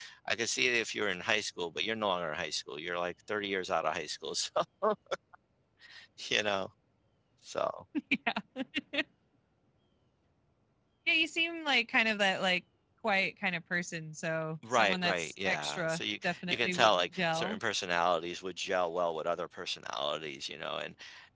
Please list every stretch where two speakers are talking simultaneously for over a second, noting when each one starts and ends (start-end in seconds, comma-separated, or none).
14.7-17.6